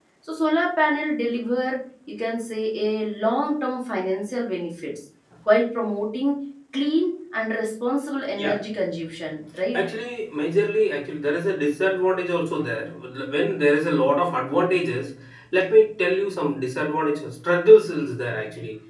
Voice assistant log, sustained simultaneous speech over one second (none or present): none